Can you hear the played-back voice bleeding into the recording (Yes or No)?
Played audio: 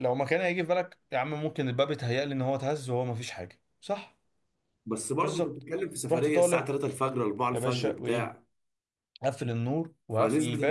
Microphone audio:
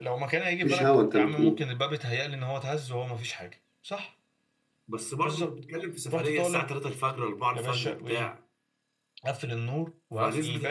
Yes